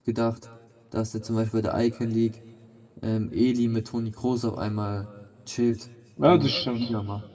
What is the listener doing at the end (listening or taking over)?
taking over